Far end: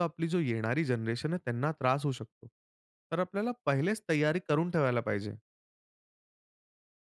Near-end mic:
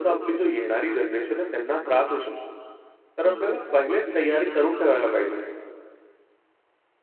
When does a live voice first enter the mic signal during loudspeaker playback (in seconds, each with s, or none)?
3.2 s